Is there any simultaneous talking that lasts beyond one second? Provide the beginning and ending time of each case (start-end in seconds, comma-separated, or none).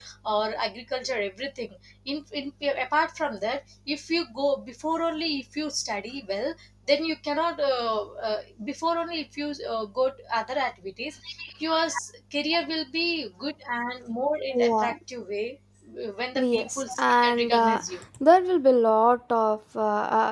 16.4-17.8